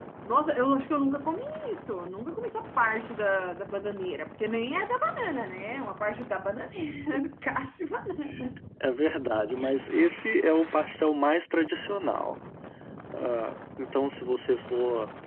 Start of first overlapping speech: none

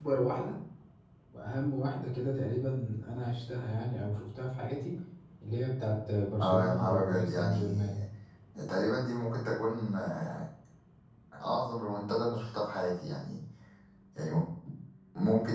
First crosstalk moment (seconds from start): 6.4 s

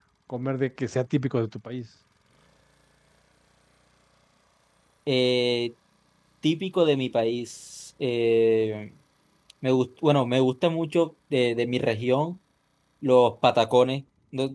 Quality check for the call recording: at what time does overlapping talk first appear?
none

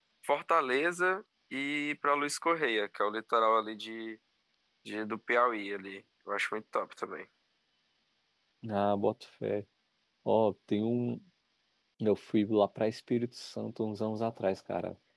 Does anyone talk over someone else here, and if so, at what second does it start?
none

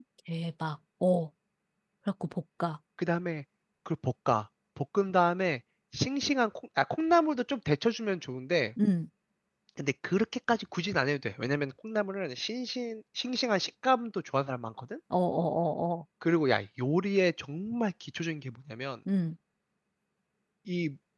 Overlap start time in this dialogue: none

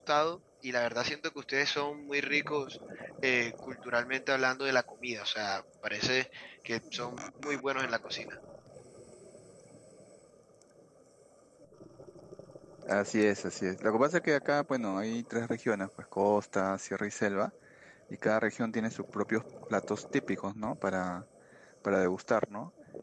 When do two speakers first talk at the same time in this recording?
none

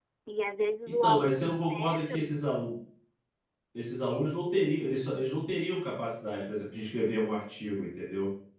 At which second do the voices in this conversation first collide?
0.9 s

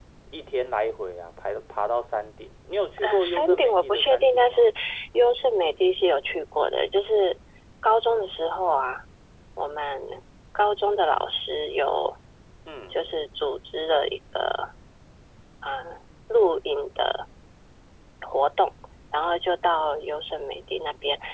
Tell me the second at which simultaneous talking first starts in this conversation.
3.0 s

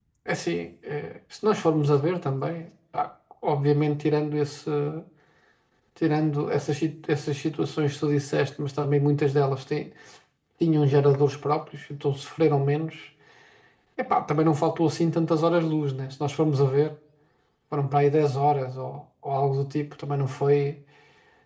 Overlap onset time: none

